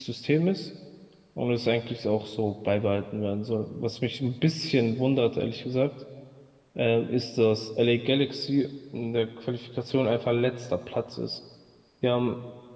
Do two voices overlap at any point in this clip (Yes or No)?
No